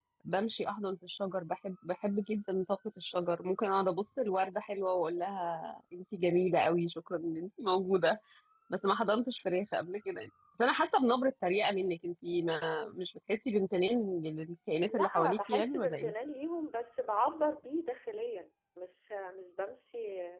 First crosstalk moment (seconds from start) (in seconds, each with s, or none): 14.8 s